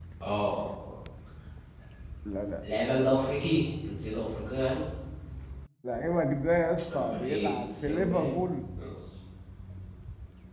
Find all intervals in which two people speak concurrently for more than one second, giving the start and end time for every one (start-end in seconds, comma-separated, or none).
6.9-8.4